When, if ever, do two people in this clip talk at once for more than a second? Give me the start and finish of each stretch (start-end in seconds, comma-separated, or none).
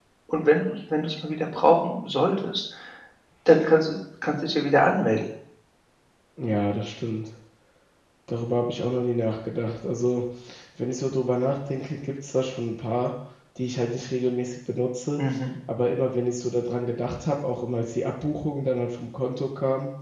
none